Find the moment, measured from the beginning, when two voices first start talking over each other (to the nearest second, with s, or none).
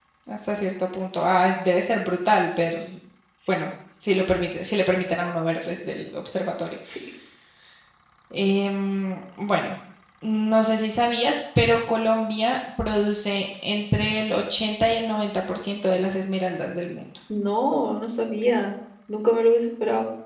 none